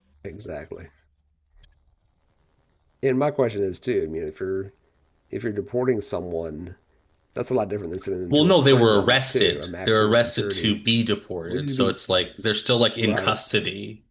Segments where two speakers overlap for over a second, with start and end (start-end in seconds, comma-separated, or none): 8.3-10.8